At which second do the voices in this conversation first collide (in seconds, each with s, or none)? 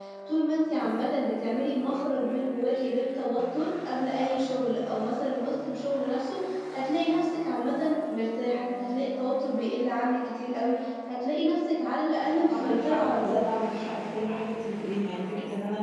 12.3 s